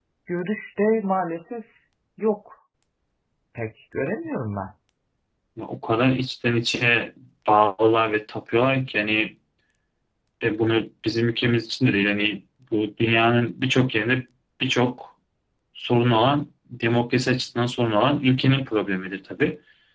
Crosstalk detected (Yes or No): No